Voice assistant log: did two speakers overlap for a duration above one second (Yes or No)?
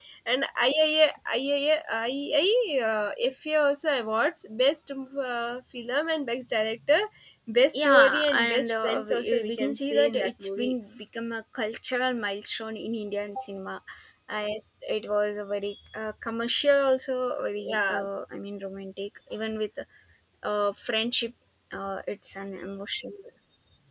Yes